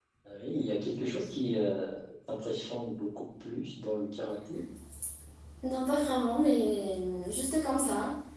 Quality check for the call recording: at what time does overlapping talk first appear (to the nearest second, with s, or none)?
none